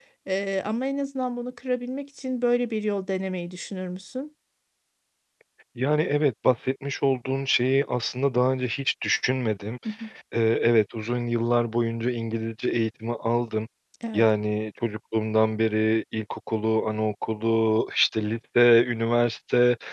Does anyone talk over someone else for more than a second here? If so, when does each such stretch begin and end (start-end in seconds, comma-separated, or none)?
none